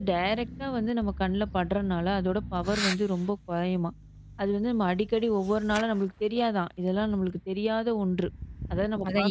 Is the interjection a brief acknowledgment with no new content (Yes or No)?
No